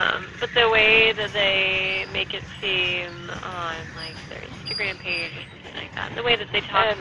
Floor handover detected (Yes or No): No